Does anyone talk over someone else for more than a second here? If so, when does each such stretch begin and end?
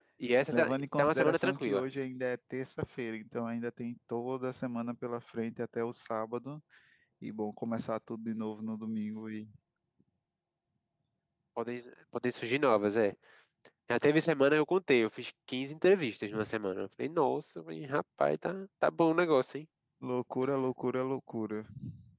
0.5-1.8

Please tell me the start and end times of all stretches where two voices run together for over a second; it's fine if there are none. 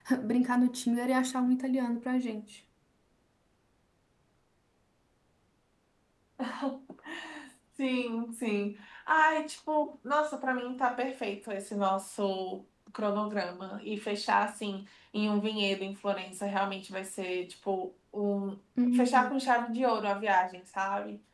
none

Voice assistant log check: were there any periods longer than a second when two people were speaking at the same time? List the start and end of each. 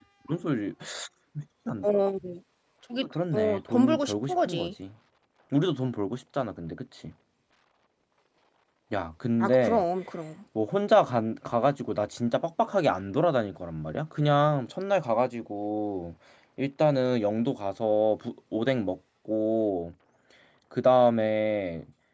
3.3-4.7

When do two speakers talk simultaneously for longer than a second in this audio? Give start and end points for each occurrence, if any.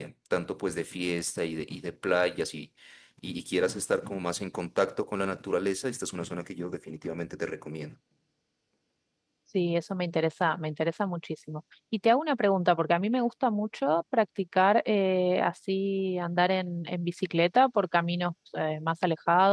none

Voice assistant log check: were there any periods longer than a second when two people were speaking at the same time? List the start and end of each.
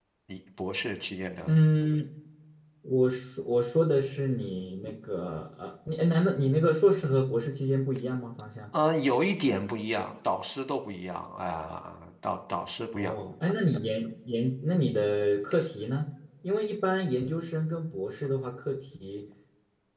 none

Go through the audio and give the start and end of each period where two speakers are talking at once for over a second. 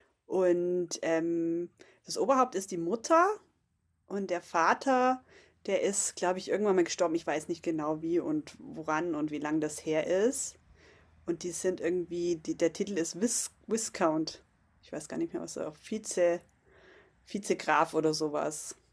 none

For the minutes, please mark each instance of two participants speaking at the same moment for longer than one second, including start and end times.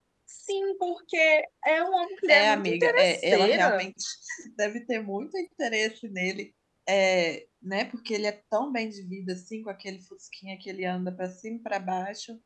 2.3-3.9

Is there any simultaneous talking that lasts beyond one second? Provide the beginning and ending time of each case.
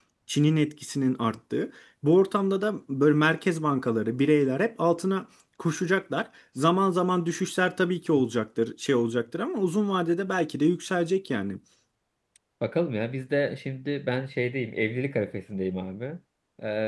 none

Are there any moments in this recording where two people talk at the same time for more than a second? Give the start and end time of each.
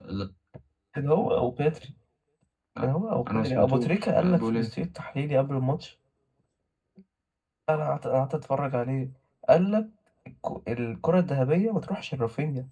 3.3-4.7

